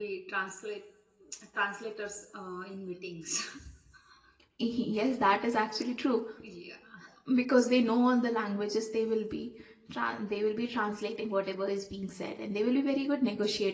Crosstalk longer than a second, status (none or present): none